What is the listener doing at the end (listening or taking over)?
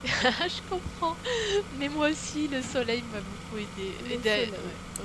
listening